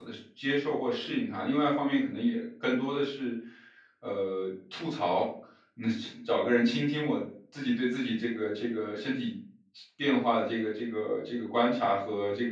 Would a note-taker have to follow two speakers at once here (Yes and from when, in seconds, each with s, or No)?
No